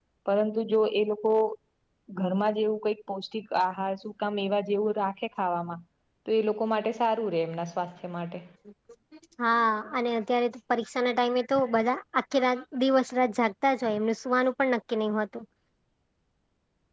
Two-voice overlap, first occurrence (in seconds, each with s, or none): none